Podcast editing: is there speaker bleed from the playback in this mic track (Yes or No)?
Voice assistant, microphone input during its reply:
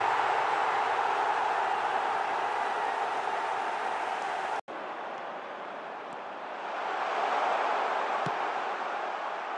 No